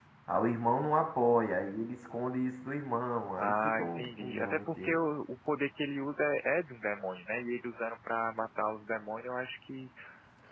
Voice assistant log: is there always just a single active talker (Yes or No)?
No